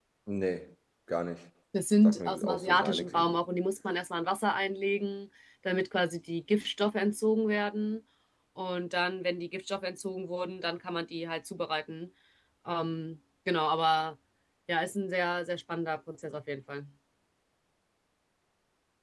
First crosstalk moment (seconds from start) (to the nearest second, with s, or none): 2 s